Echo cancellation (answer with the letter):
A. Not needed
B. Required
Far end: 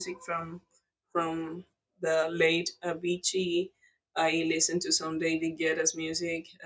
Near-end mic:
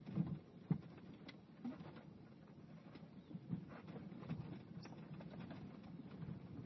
A